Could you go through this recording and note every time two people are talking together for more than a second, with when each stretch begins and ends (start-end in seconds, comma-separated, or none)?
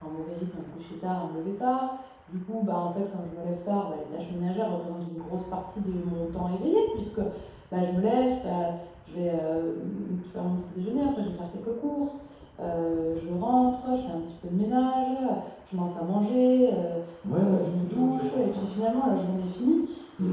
17.4-18.6